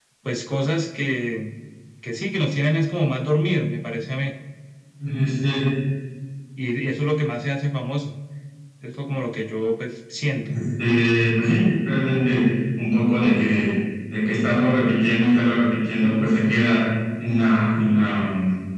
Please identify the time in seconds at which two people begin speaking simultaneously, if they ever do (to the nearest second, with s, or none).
none